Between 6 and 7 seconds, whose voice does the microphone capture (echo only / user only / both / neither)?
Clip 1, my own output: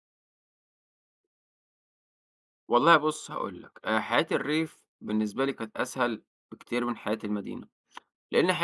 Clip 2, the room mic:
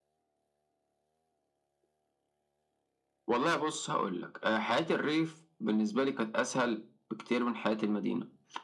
echo only